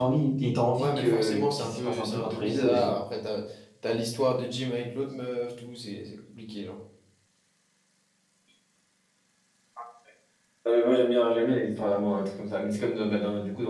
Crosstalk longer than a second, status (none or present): present